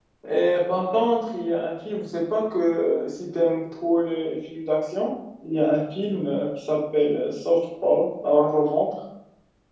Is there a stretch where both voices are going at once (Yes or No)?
No